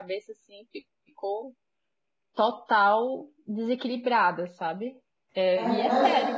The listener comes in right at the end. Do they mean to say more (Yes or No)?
Yes